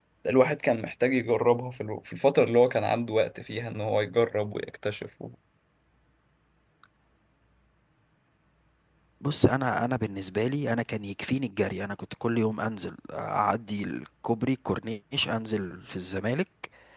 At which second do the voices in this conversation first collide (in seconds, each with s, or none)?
none